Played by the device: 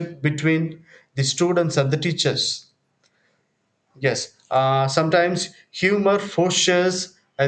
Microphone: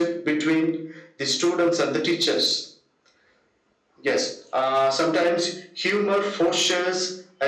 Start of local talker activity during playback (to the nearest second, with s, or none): none